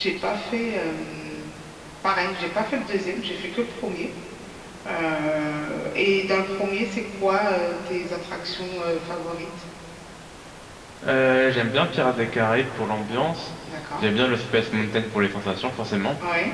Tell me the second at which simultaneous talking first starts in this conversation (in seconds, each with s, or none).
none